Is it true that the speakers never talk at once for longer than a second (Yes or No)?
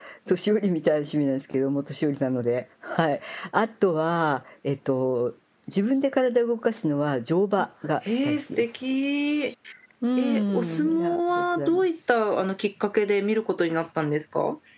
No